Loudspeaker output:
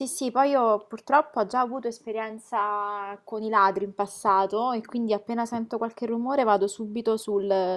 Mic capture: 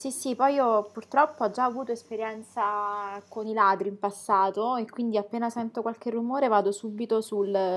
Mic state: echo only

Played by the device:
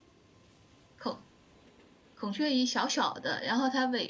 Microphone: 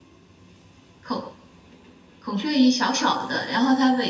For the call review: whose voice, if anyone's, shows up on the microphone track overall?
echo only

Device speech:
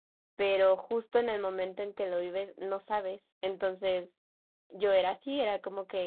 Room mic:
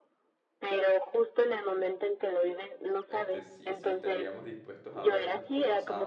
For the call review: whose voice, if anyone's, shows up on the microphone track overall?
both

